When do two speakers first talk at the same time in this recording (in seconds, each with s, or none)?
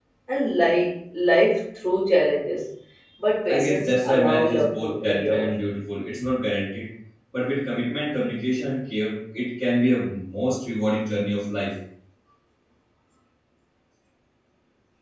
3.5 s